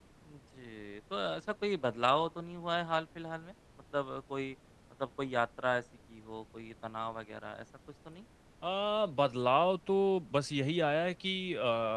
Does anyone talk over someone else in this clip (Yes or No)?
No